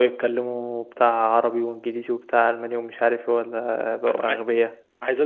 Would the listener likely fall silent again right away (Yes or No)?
No